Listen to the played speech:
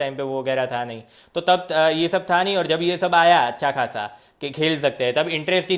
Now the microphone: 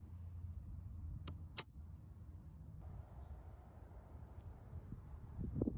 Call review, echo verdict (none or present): none